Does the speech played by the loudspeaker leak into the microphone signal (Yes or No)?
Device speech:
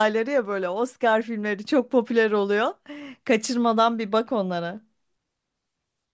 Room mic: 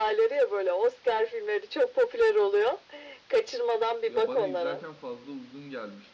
Yes